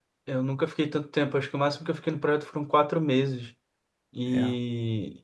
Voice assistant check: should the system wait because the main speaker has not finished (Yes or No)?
Yes